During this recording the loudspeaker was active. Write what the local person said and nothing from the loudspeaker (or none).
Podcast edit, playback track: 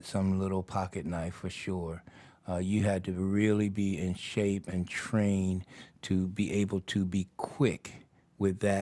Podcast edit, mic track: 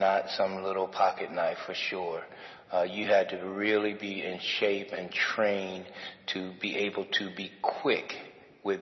none